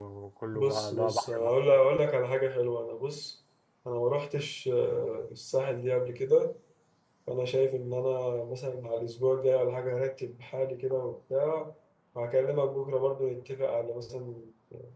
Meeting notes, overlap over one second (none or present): present